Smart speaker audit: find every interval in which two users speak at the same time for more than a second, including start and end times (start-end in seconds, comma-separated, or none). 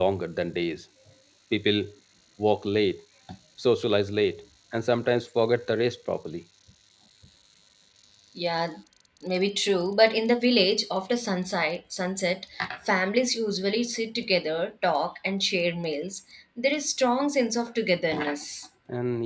none